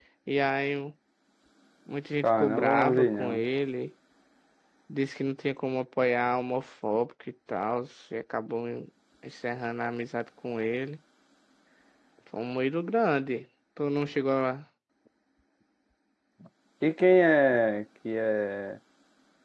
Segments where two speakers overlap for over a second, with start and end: 2.2-3.5

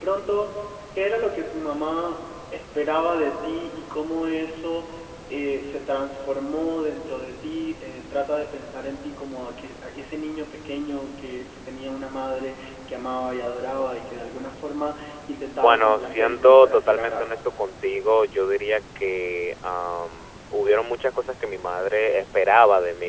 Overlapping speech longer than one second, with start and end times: 15.6-17.4

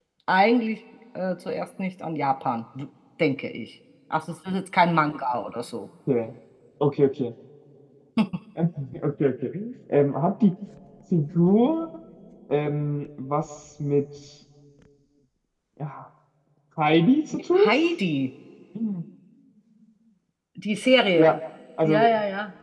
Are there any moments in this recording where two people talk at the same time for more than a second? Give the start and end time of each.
none

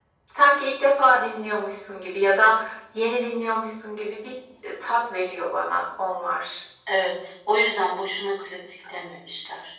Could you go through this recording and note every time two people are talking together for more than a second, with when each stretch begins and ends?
none

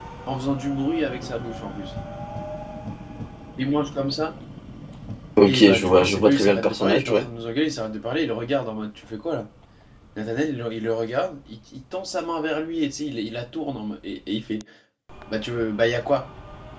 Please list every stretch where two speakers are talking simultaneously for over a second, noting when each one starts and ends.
5.5-7.3

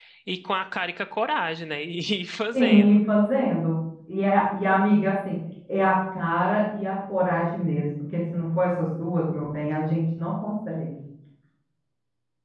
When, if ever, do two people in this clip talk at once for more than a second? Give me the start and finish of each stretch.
none

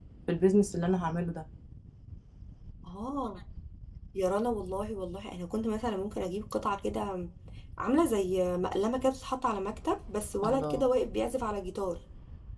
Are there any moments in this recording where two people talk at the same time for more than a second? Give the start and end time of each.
none

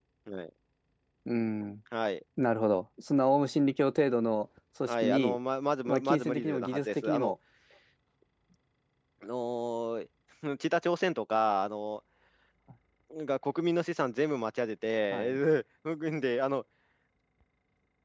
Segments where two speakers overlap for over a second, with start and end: 5.8-7.3

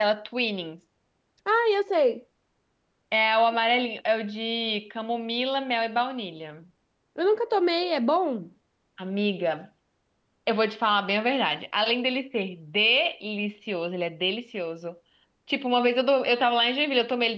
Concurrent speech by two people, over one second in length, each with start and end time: none

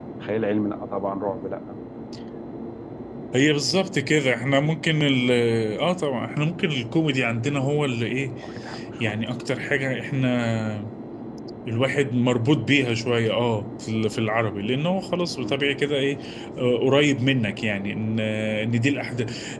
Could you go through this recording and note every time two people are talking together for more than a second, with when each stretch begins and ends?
none

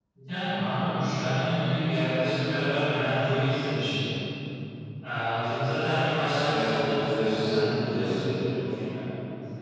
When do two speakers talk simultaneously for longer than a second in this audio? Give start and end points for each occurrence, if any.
6.4-8.1

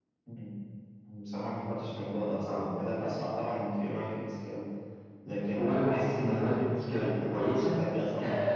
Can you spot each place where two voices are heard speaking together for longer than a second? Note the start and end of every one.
5.6-7.8

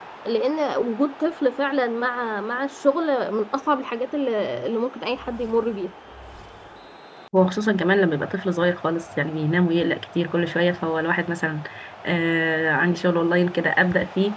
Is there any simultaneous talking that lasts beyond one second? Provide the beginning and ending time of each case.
none

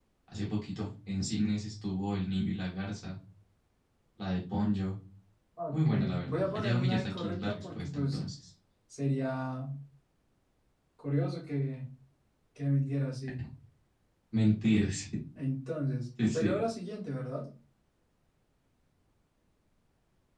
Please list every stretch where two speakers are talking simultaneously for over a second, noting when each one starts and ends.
5.7-8.2

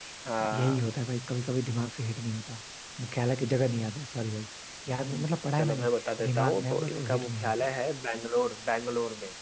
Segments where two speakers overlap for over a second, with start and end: 6.3-7.7

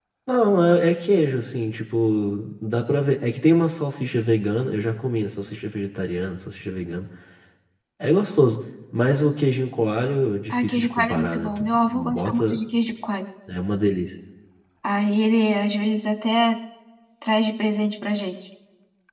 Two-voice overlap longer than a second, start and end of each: 10.5-12.6

